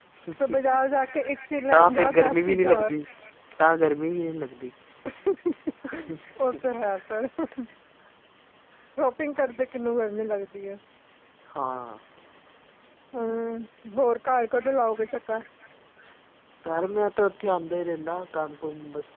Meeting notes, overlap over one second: present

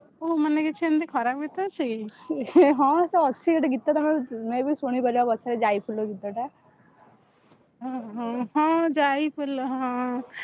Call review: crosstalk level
none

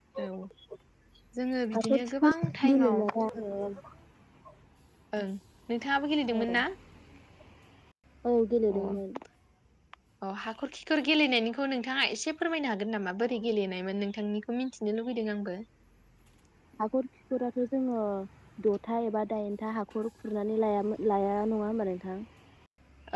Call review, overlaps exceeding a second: present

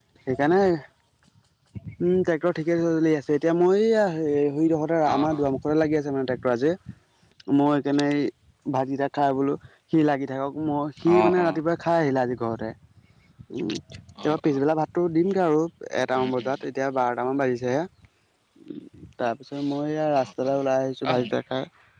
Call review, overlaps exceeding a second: none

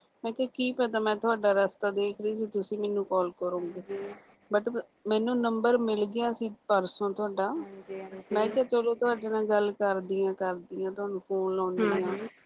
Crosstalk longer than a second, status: none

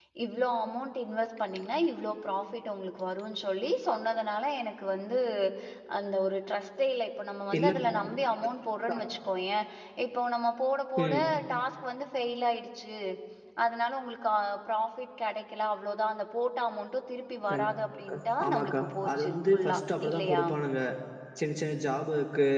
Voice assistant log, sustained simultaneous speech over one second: present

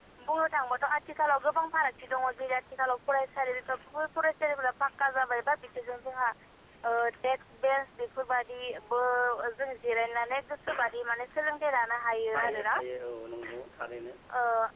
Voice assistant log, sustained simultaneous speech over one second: none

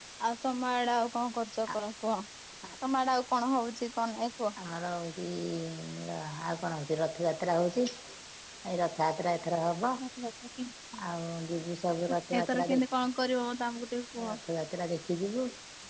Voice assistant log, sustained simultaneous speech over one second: none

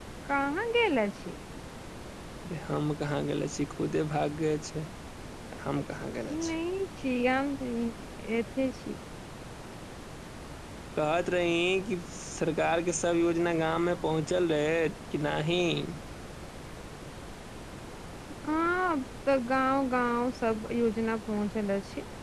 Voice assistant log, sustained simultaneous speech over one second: none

